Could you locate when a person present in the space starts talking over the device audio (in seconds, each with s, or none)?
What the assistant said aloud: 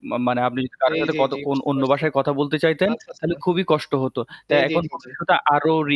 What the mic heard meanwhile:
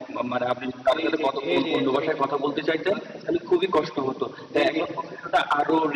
1.4 s